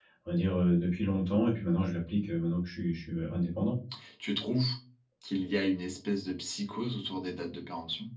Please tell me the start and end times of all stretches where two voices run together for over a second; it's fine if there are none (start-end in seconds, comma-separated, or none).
none